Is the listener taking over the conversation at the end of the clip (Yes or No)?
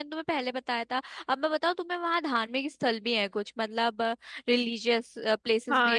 Yes